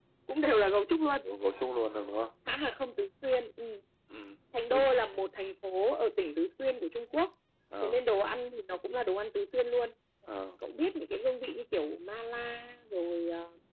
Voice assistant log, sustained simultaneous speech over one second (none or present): none